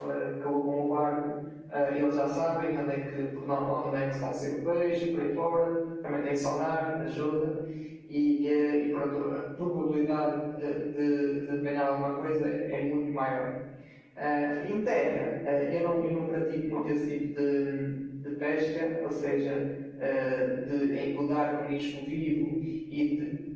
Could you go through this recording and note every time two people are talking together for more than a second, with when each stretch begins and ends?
none

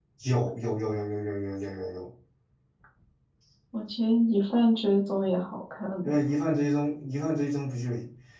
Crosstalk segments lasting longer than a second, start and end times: none

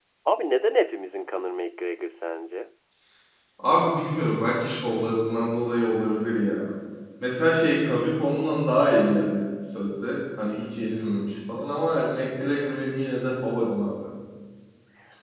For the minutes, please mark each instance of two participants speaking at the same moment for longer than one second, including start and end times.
none

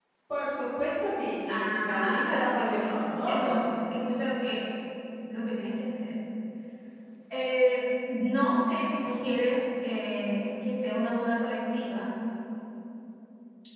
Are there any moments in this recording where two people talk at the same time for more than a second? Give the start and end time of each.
1.5-3.7

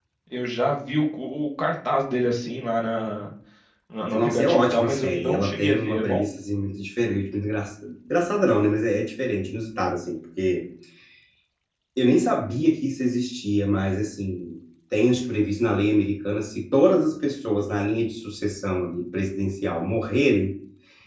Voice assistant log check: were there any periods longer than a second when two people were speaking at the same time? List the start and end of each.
4.1-6.3

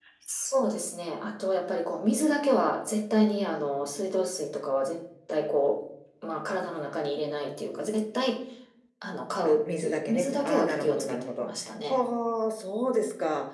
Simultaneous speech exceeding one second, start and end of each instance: 9.4-11.5

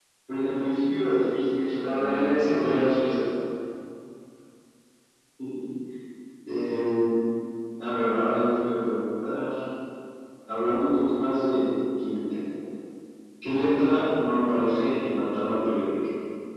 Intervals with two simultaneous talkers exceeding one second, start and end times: 1.8-3.1

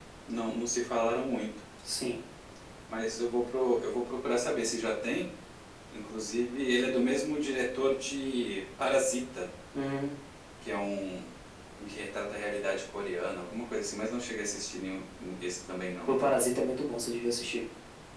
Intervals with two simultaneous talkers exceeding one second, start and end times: none

